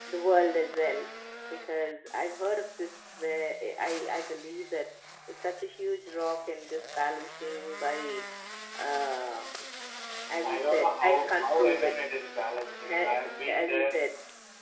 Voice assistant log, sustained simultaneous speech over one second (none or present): present